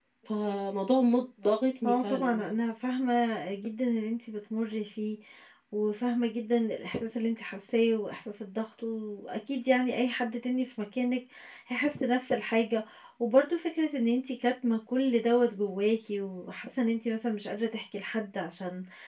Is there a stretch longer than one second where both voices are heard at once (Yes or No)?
No